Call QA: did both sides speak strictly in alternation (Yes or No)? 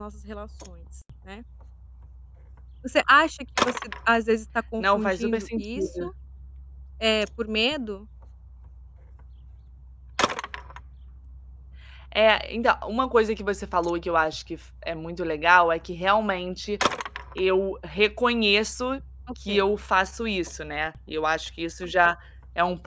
No